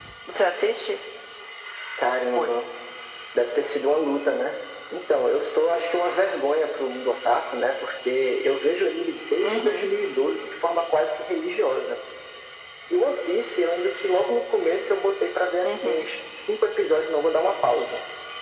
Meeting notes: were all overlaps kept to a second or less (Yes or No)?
Yes